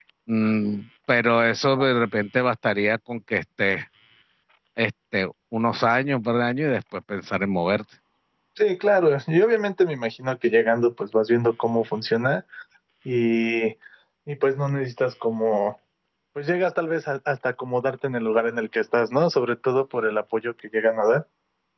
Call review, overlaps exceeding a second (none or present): none